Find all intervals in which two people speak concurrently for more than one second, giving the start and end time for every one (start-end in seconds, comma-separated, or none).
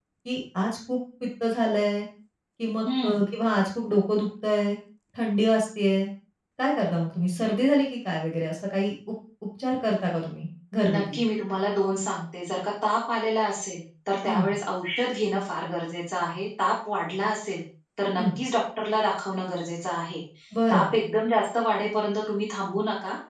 none